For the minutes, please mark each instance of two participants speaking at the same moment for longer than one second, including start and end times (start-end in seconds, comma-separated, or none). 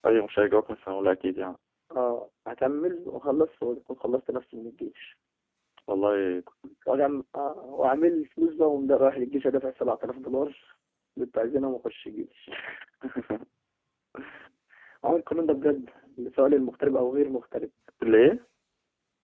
none